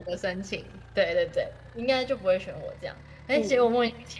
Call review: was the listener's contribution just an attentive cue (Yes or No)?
Yes